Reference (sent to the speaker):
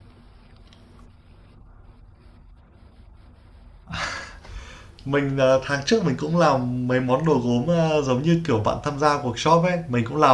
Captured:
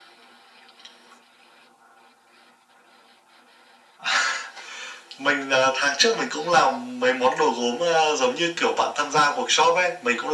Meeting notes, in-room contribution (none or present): none